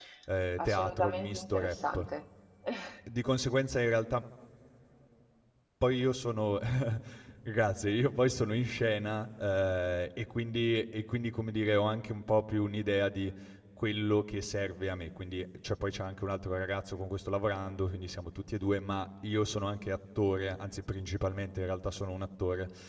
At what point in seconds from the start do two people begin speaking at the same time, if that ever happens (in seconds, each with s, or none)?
0.6 s